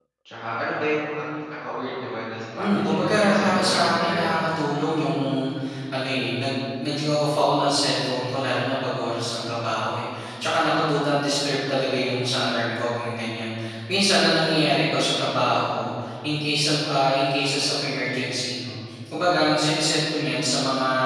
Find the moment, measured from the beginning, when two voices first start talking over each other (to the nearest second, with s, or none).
3 s